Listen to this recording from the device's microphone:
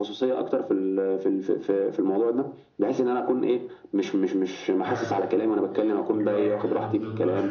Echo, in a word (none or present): present